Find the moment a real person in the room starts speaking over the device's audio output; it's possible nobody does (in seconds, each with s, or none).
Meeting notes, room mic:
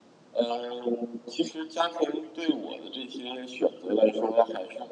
none